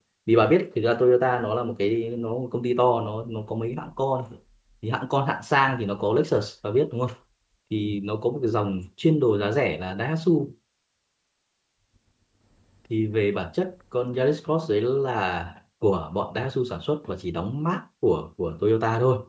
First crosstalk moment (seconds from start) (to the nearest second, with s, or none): none